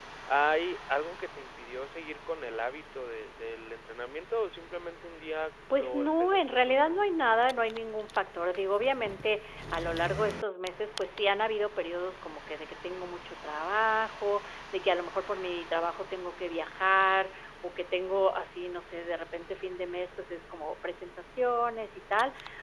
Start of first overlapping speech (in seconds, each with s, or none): 5.7 s